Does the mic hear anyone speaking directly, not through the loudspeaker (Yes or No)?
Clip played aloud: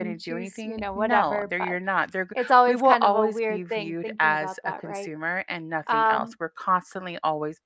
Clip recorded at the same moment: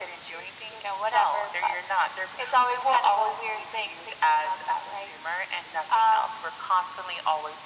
No